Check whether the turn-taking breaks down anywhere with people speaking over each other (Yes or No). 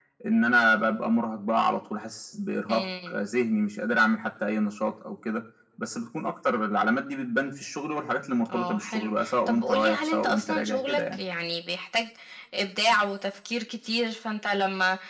Yes